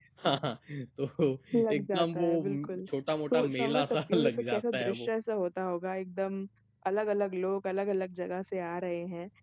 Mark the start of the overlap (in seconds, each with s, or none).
1.5 s